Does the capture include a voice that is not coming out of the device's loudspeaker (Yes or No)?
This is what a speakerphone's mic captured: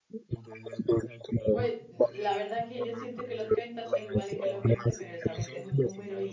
Yes